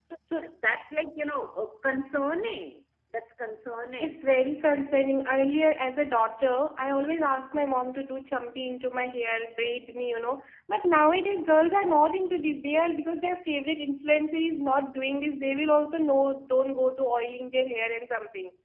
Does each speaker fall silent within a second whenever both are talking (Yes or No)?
Yes